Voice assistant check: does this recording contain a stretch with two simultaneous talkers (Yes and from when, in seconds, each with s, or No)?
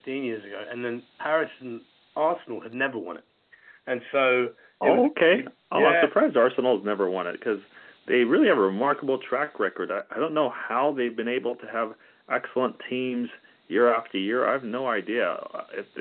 Yes, from 4.8 s